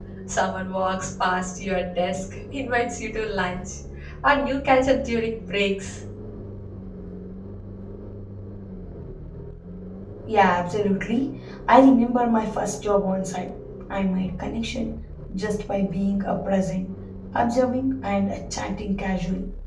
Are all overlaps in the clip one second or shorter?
Yes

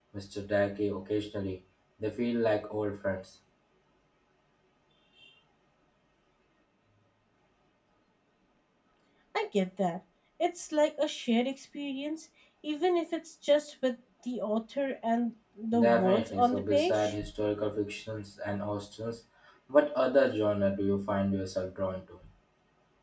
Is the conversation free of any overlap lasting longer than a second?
No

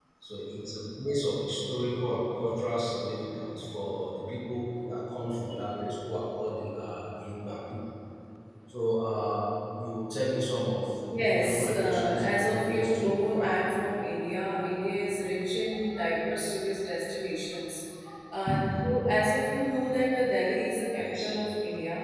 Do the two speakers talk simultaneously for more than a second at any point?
Yes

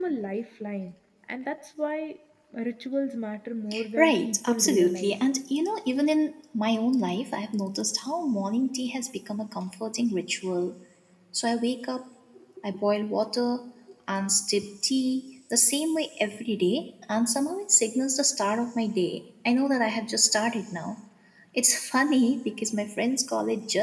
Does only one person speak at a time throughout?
No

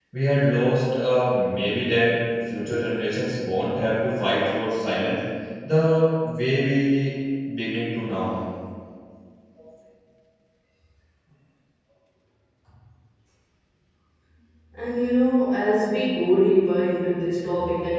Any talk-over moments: No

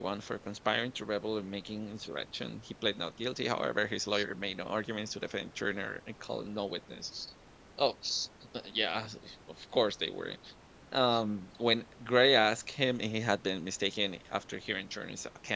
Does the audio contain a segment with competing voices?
No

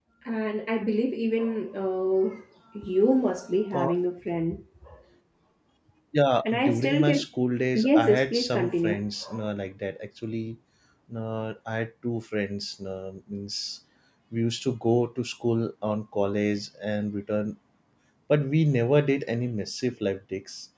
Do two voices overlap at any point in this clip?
Yes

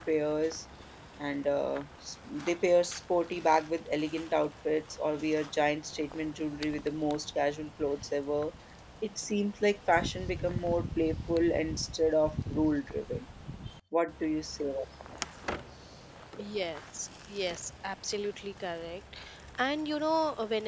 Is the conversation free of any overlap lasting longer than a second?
Yes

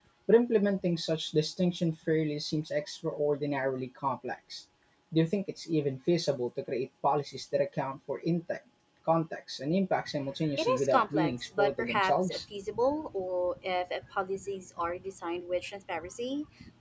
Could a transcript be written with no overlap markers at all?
No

